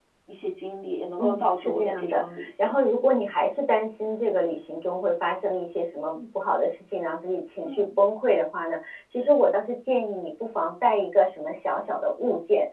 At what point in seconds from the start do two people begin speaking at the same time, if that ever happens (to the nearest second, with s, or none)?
1 s